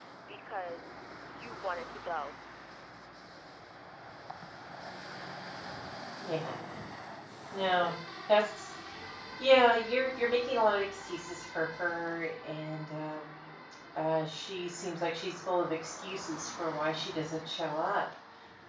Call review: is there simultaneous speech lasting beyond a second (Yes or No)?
No